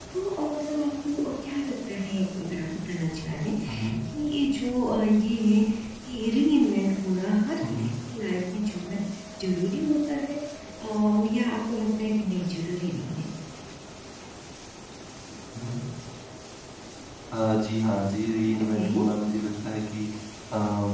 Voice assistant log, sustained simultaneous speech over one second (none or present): none